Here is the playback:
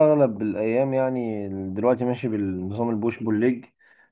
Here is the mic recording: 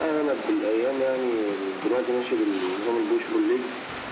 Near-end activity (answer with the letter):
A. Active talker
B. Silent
B